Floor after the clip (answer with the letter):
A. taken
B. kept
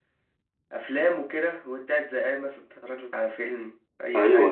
A